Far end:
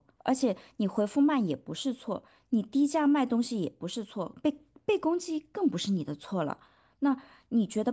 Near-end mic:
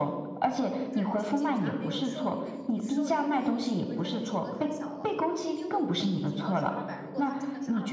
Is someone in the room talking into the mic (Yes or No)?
Yes